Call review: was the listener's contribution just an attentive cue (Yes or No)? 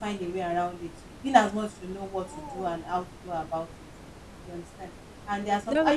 Yes